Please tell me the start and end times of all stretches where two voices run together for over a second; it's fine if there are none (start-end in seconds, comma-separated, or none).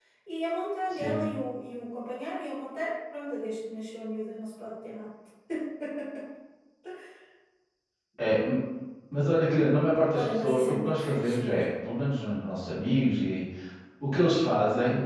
10.1-11.7